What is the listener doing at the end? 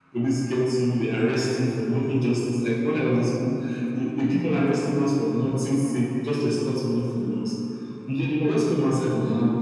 listening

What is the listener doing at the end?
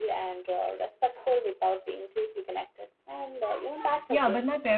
taking over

